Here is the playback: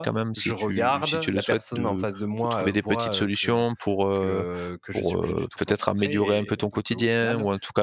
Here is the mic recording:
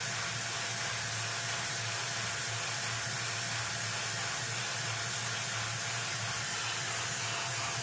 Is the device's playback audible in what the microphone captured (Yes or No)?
No